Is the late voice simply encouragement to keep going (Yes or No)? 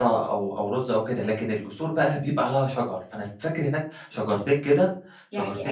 No